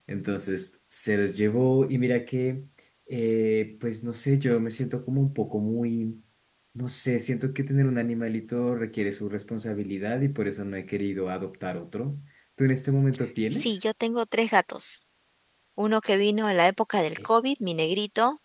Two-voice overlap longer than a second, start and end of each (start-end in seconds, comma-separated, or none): none